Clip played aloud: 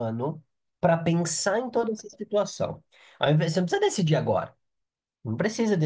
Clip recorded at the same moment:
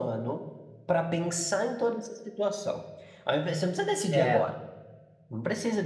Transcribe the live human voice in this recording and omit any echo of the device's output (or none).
É,